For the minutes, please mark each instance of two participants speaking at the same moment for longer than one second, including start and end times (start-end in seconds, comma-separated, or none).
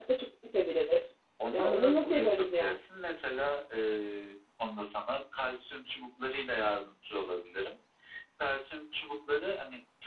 1.5-2.8